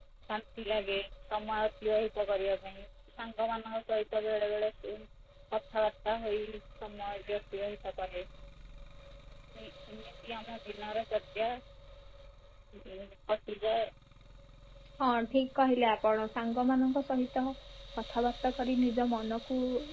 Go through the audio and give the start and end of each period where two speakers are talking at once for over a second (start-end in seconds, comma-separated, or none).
none